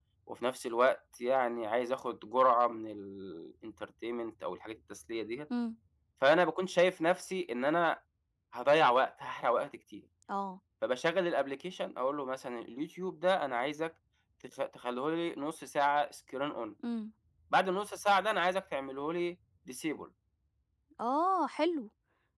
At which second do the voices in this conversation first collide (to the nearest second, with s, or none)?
none